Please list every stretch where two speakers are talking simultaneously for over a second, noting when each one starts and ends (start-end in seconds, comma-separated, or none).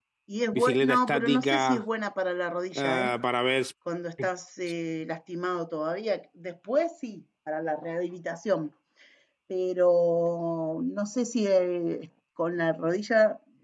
0.5-1.8